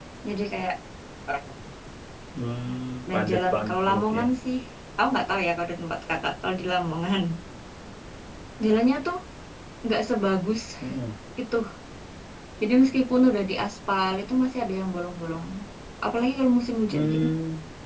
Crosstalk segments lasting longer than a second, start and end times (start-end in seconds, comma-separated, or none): 3.1-4.3